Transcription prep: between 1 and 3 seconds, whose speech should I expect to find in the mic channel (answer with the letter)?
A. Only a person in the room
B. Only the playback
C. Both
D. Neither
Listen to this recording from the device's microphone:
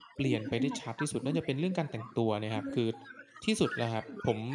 C